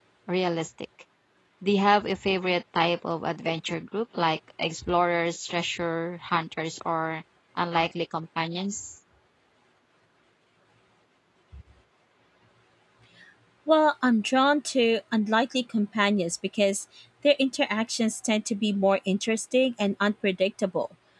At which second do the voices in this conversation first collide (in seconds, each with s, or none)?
none